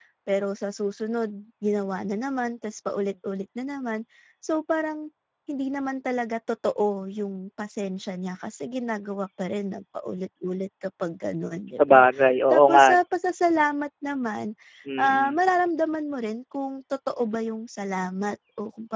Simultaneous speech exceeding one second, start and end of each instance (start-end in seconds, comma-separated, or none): none